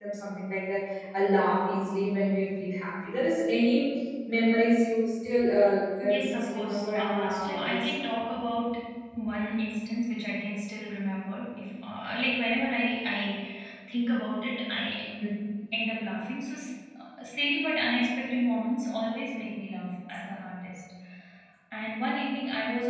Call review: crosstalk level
present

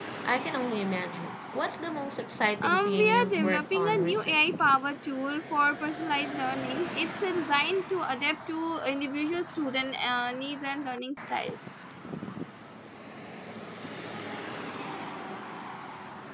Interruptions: present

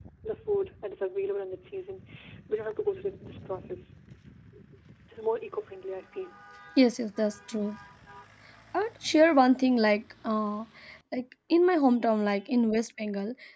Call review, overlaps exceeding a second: none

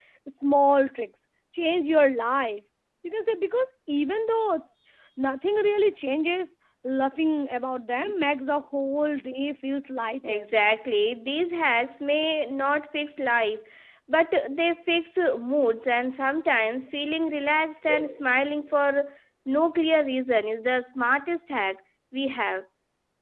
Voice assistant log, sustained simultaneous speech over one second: none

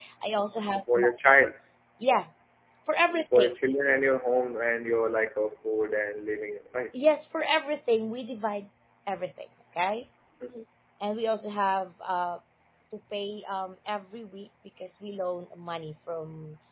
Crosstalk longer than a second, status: none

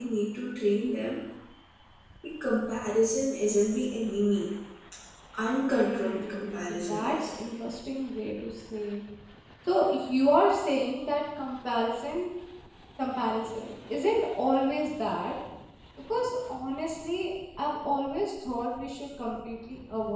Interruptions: present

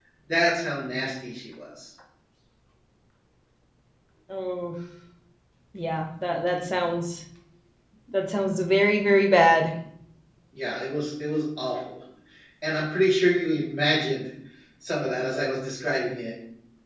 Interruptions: none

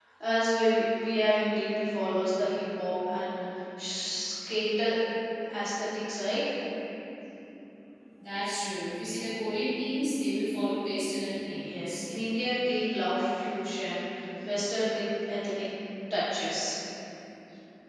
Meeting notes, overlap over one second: none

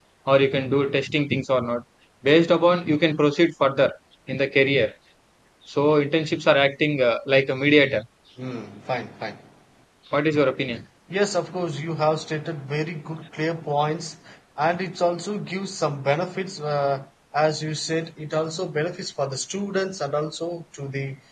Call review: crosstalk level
none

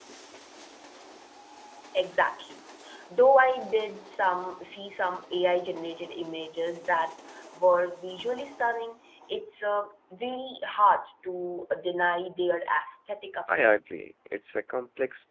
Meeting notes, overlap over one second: none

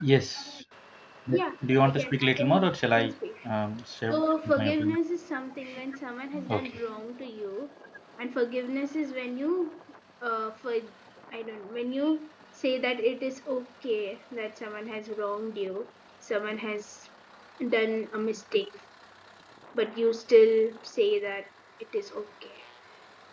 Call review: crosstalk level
present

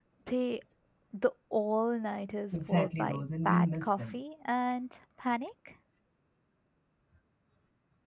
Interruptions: present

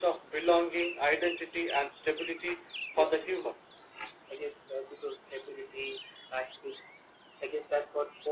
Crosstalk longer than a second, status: none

